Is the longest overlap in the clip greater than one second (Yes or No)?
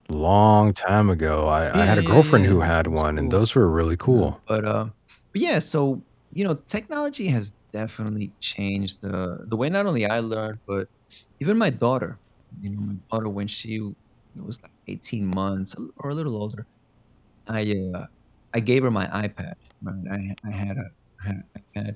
Yes